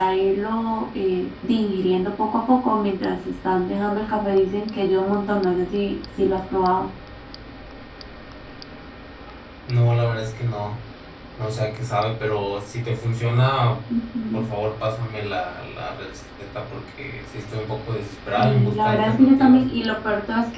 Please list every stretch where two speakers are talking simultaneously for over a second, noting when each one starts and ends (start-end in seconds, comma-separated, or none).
18.4-19.6